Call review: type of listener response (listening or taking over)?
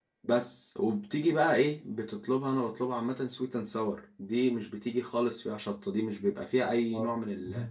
listening